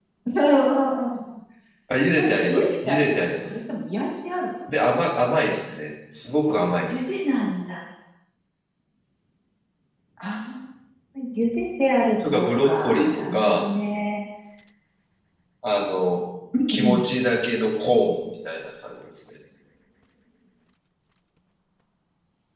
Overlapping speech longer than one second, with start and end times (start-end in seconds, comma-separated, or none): 2.2-3.5, 12.3-13.7